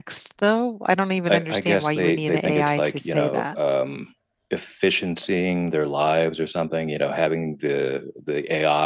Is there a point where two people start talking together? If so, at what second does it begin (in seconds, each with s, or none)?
1.3 s